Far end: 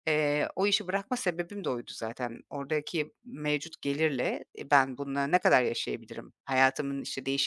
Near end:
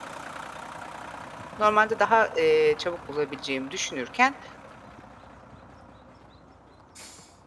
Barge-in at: 2 s

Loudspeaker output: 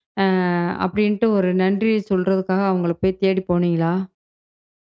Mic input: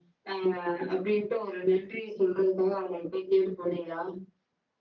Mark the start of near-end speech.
none

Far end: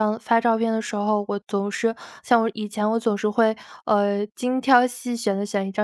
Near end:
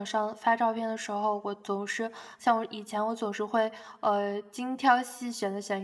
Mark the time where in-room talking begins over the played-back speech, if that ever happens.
none

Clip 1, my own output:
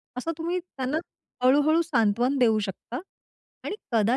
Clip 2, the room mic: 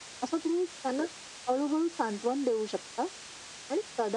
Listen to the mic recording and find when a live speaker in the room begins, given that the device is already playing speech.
none

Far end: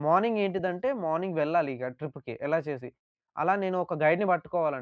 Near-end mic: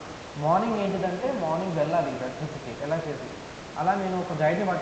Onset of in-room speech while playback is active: none

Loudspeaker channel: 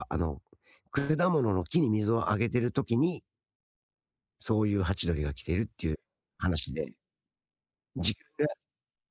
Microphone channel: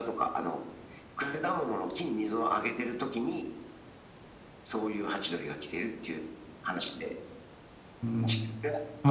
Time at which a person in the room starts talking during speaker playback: 8 s

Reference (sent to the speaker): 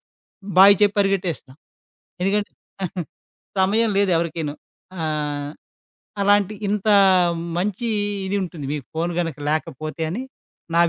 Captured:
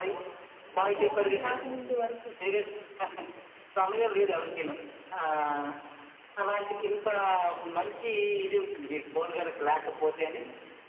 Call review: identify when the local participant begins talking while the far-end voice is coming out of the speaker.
1 s

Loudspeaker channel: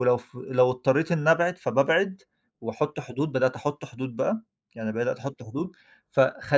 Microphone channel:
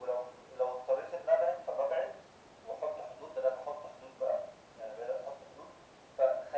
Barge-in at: none

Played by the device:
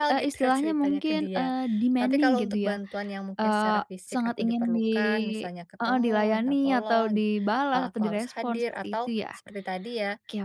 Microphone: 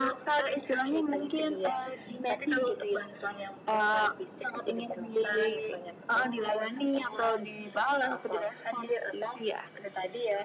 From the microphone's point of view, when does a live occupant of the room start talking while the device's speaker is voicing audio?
none

